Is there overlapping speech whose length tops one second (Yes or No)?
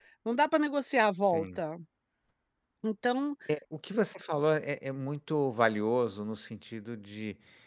No